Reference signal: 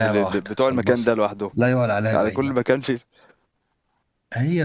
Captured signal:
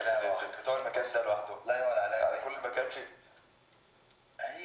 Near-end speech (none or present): none